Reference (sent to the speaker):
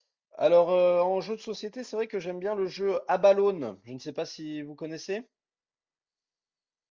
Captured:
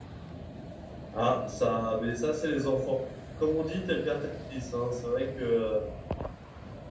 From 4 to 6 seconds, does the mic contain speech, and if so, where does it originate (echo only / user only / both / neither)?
user only